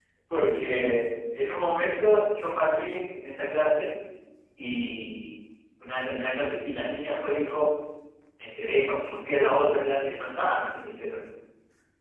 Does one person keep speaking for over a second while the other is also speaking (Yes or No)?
No